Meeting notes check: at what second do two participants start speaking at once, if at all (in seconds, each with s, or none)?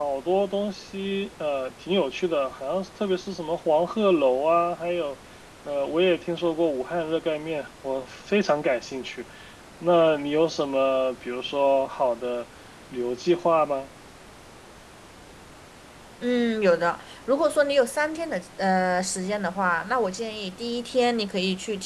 none